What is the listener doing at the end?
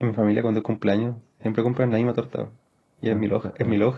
listening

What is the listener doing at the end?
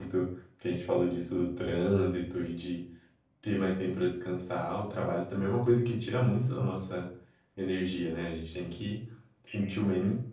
listening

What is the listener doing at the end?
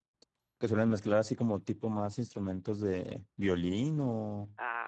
taking over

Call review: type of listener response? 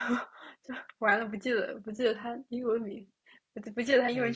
taking over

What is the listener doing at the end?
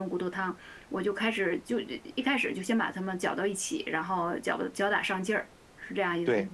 taking over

